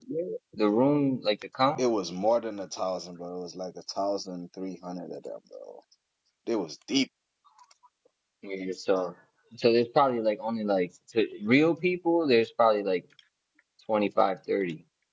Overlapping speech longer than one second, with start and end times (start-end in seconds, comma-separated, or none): none